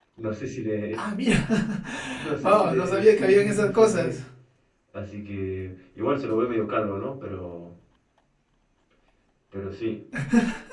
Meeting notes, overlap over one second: present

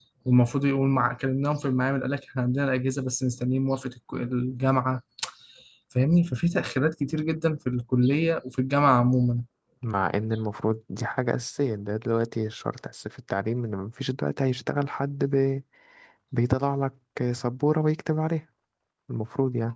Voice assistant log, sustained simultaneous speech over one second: none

